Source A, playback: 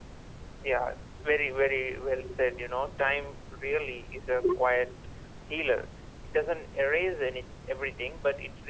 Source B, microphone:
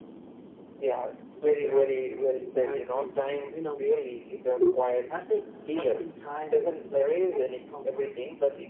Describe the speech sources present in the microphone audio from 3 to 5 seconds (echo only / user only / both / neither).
both